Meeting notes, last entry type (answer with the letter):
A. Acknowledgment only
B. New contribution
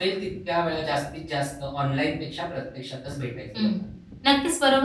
B